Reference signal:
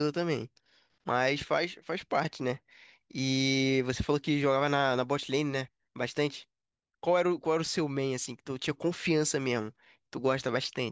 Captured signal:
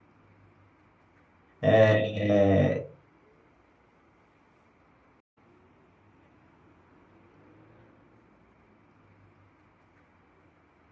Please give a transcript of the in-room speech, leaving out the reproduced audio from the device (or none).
é,